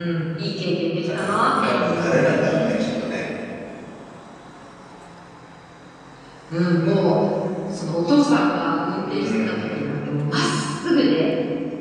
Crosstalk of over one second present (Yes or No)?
Yes